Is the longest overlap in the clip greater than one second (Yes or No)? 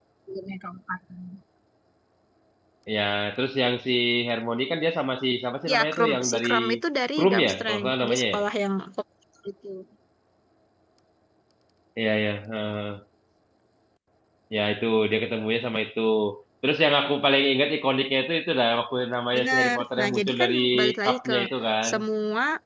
Yes